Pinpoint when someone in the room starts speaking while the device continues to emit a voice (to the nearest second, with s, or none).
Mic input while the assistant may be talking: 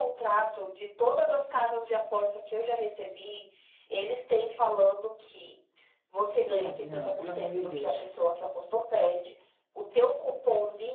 6 s